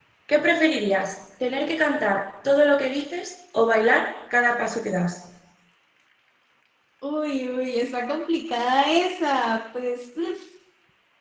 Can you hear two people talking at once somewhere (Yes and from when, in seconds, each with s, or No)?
No